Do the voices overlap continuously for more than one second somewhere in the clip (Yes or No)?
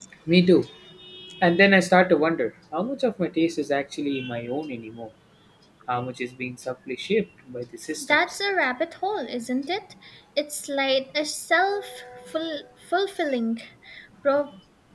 No